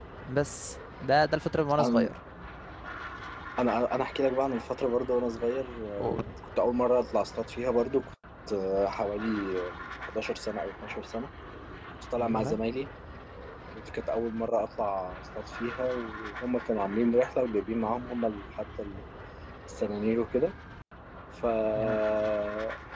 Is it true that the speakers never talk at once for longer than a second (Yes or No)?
Yes